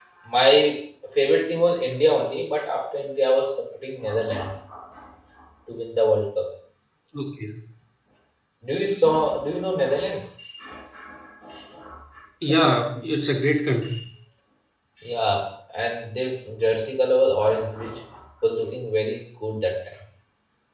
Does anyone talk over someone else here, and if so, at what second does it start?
none

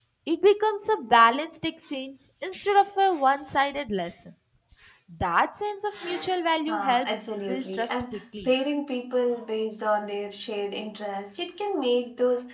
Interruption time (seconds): 7 s

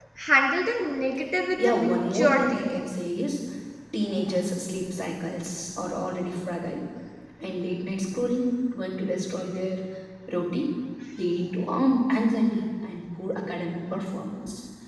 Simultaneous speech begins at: 2 s

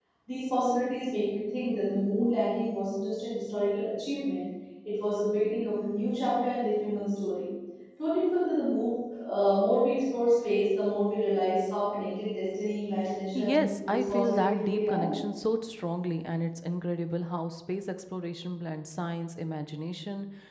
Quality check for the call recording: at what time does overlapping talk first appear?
13 s

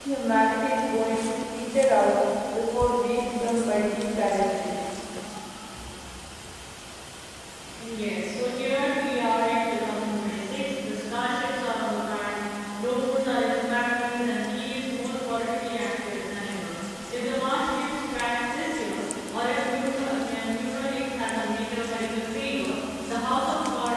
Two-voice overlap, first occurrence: none

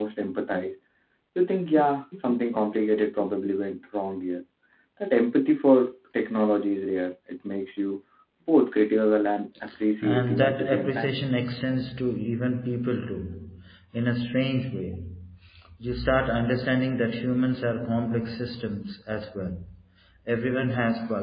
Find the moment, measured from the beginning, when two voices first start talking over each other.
10 s

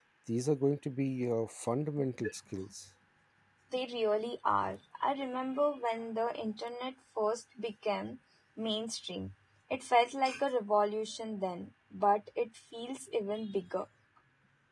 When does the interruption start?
none

